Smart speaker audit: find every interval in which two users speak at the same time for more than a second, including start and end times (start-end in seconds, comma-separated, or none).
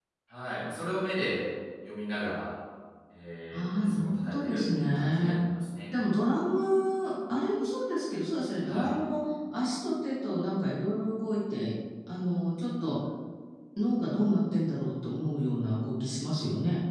3.5-5.3